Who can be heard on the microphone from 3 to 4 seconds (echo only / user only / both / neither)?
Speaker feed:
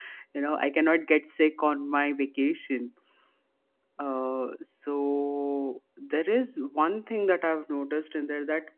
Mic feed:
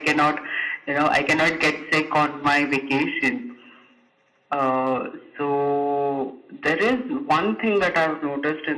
echo only